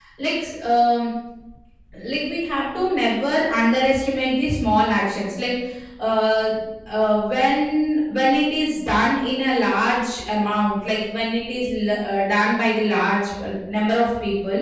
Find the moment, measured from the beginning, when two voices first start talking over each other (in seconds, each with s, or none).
none